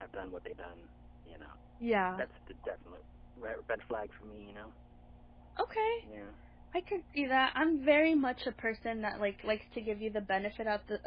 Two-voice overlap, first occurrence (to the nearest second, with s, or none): none